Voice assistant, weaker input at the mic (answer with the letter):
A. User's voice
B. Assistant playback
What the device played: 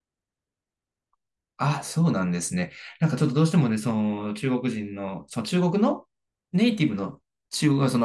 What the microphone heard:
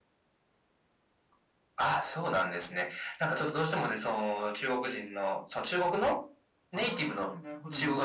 A